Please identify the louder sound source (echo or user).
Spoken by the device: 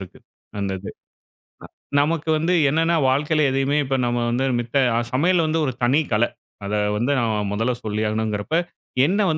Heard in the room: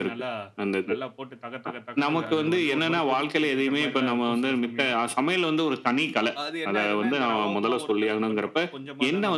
echo